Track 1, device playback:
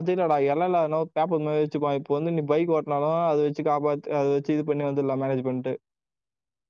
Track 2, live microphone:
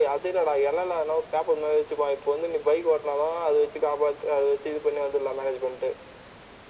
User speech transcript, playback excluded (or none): none